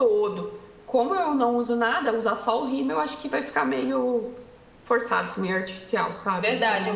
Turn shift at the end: Yes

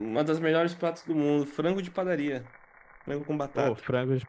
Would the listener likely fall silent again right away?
No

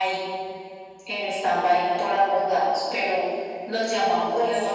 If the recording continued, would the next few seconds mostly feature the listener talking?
No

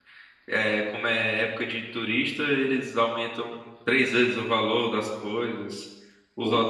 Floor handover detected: No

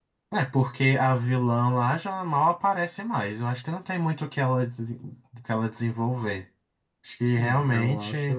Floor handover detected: Yes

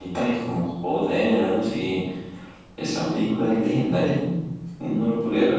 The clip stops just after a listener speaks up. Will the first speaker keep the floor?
No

